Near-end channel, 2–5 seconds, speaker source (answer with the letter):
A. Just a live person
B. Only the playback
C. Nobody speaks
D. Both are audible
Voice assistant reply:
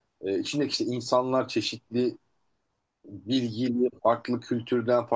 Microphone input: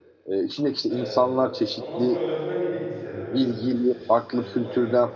D